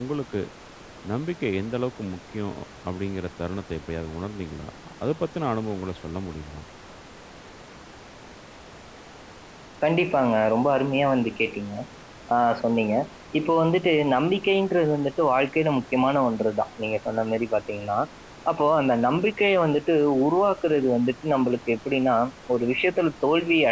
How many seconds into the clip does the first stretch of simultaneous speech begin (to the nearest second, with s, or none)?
none